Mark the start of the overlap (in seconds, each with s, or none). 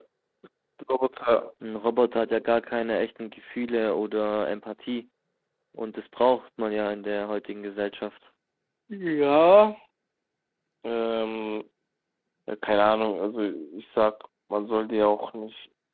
none